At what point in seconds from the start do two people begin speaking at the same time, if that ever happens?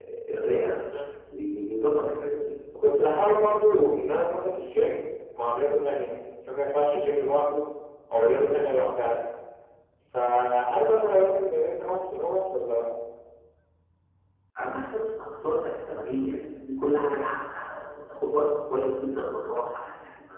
none

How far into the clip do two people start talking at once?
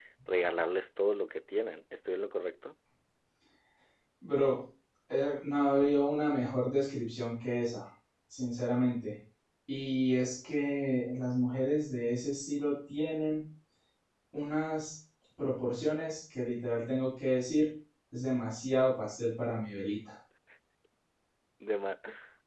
none

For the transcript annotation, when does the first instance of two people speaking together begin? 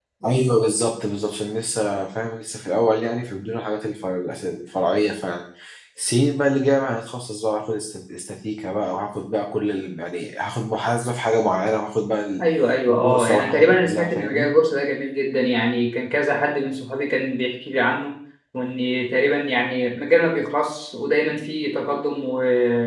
13 s

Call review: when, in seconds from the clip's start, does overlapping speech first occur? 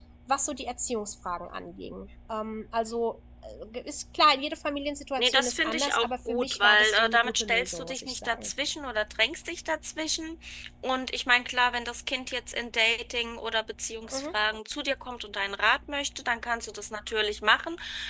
5 s

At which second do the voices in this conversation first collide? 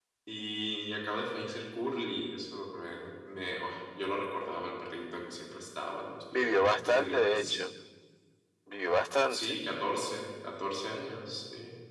6 s

